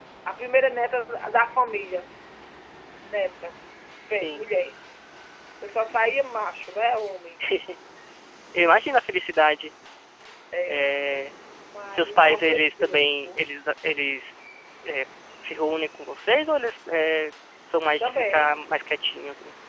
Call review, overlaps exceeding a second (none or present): present